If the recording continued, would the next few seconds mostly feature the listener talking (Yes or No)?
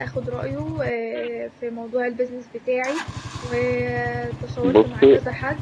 No